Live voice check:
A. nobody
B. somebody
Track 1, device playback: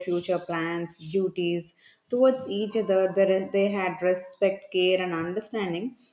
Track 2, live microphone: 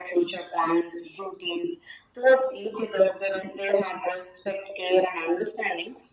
A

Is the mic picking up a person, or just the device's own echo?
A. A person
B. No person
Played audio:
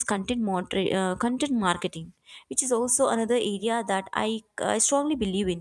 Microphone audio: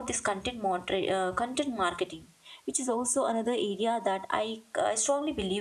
B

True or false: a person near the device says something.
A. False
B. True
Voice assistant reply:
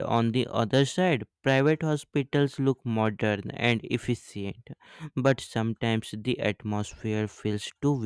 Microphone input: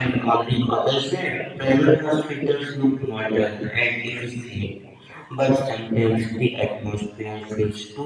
A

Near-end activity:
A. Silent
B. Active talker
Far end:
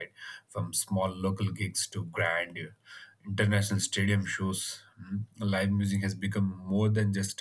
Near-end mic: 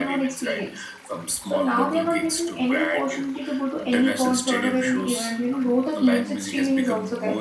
B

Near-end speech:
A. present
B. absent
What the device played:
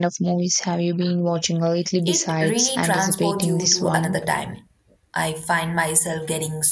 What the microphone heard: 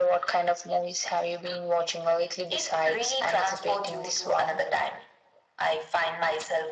B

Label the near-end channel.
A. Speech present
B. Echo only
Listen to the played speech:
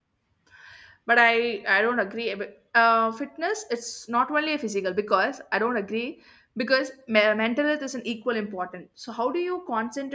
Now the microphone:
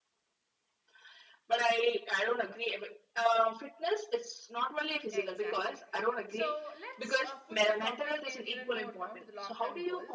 A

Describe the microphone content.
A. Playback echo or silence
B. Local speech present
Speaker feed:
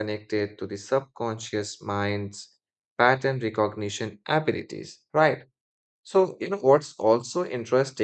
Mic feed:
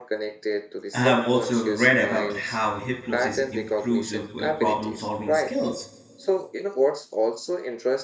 B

